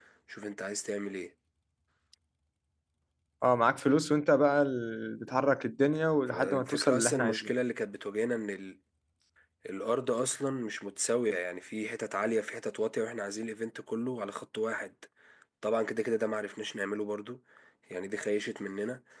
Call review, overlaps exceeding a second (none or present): present